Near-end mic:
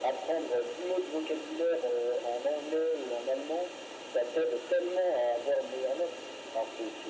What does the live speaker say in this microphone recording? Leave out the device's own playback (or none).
none